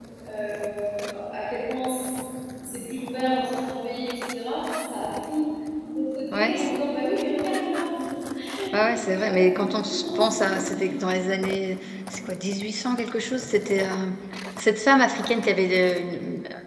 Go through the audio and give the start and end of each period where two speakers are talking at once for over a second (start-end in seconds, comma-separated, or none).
9.0-10.3